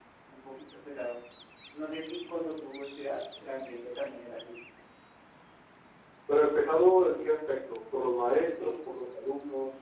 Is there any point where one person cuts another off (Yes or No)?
No